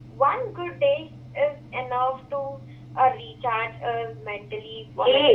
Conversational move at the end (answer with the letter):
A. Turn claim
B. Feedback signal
A